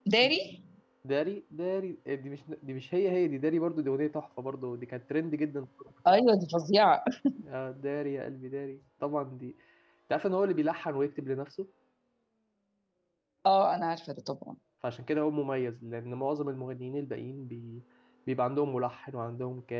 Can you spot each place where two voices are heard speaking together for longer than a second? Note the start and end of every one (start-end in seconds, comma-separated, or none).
none